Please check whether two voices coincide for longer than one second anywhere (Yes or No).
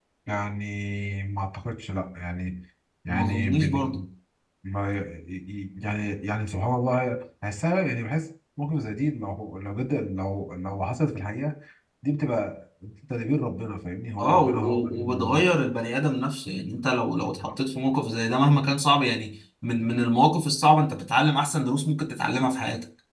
Yes